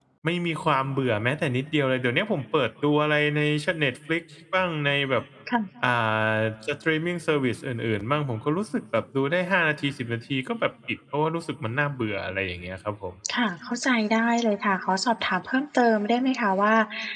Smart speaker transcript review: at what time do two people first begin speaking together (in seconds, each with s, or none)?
none